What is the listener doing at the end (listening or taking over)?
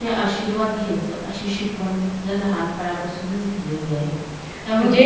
listening